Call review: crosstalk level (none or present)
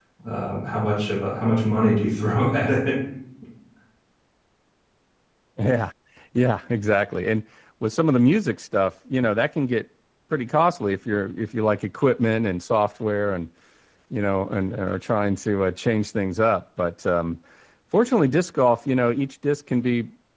none